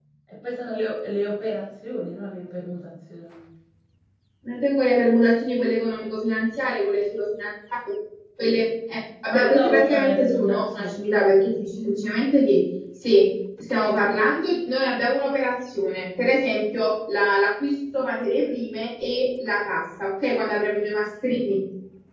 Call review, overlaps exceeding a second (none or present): present